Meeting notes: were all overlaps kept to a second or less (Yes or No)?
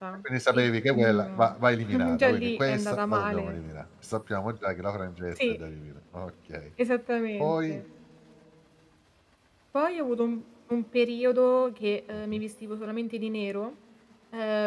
No